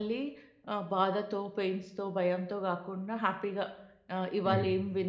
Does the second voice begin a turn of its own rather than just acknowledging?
No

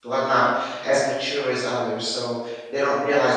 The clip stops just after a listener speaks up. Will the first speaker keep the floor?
Yes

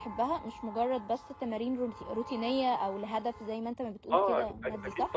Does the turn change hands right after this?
Yes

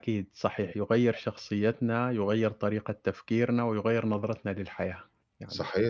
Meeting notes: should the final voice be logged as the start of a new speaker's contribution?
Yes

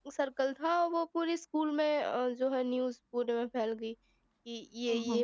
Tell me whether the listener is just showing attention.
Yes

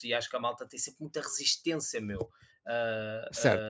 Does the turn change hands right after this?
Yes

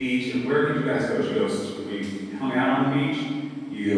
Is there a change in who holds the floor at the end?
Yes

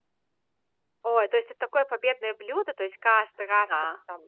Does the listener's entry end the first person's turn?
No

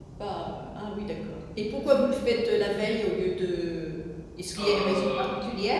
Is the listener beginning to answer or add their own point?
Yes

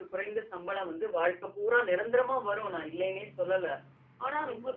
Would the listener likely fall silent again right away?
Yes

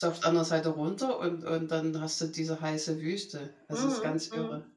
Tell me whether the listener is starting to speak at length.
Yes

